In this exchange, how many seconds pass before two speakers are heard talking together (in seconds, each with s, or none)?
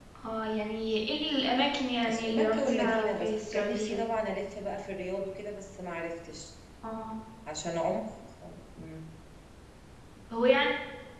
2.0 s